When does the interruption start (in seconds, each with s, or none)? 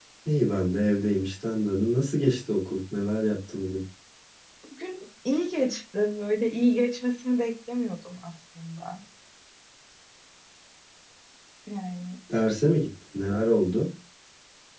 none